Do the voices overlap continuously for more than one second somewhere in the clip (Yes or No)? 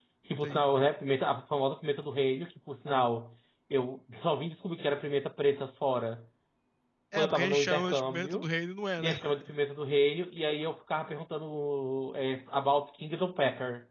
Yes